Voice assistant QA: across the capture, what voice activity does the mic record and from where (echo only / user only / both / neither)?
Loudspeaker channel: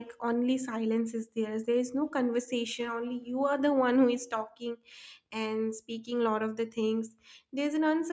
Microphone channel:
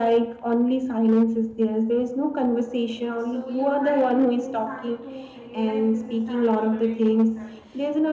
both